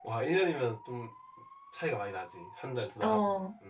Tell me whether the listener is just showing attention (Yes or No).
No